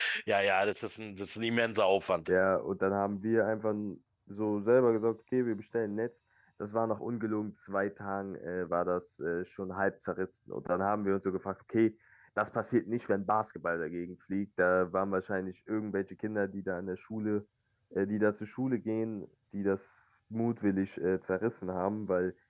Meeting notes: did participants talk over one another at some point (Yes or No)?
No